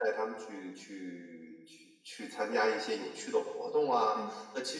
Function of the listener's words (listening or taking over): listening